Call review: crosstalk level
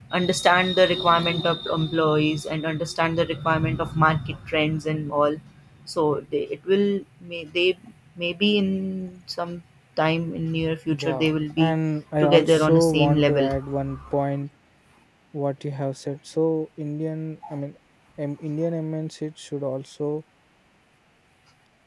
present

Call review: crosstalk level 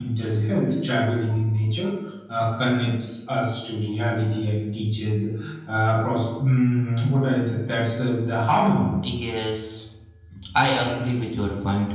none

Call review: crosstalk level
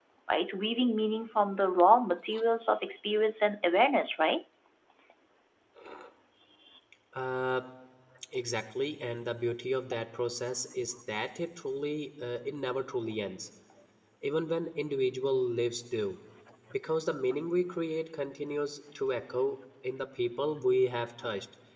none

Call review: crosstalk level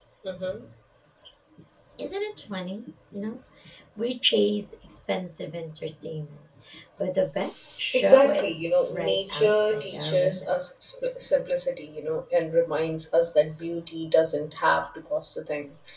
present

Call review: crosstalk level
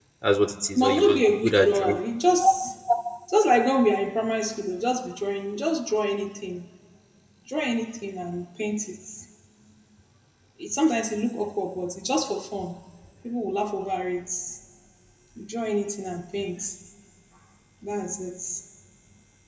present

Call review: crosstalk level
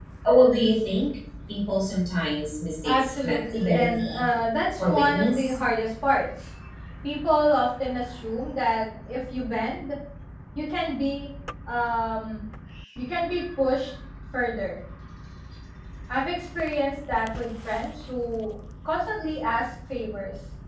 present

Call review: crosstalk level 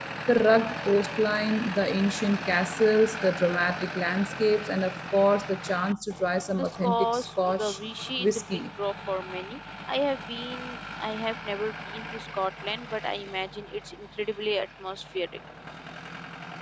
present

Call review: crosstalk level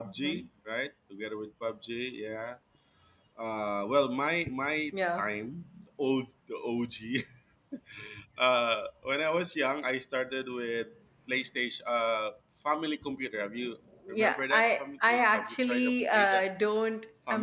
present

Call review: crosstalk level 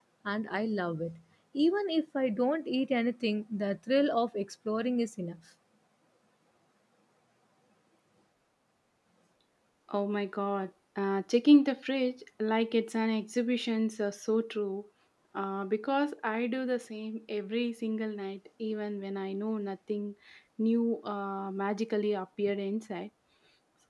none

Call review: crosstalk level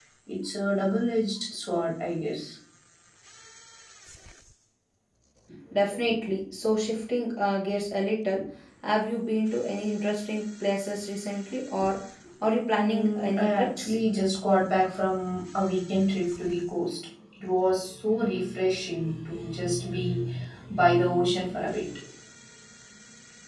present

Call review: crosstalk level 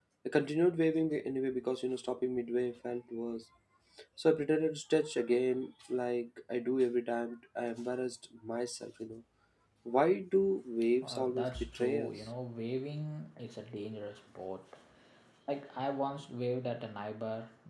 present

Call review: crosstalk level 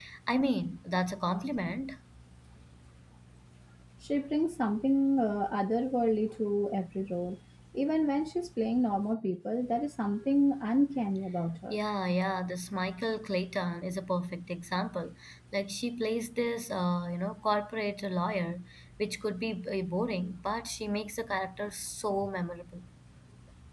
none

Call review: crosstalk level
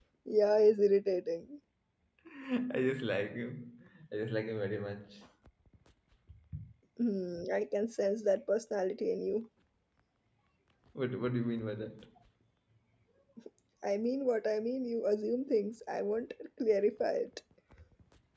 none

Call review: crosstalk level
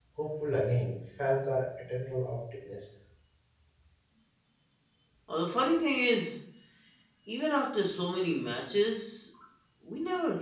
none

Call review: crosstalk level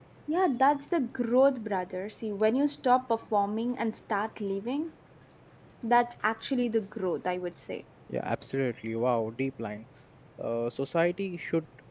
none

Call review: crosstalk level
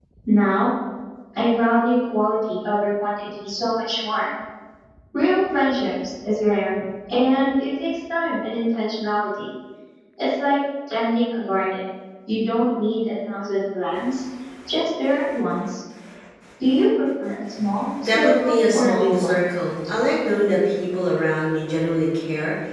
present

